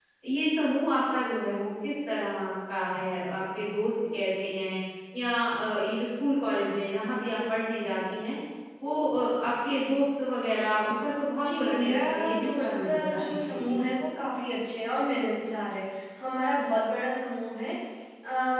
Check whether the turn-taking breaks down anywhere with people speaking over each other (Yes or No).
Yes